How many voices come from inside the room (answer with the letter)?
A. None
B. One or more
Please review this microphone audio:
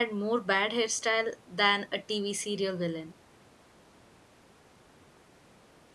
B